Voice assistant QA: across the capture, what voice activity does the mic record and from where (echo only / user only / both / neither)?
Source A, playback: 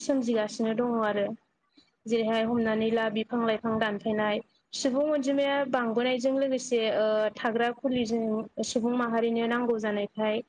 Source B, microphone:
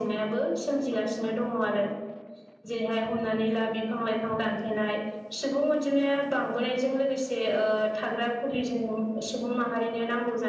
echo only